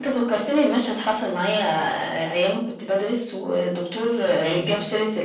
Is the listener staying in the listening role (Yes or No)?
Yes